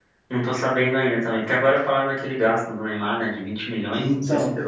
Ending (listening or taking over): taking over